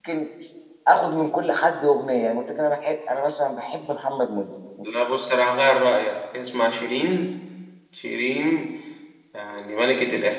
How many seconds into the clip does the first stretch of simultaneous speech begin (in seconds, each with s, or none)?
none